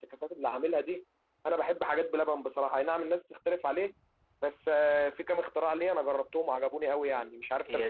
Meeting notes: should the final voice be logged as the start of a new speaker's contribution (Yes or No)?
Yes